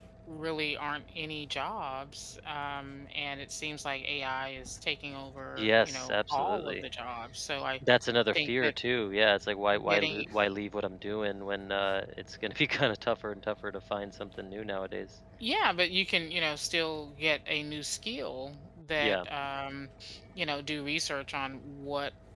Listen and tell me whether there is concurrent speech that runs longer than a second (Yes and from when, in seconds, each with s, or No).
Yes, from 5.6 s